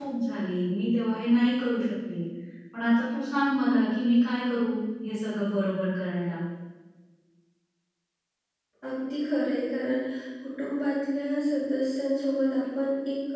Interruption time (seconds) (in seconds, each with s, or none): none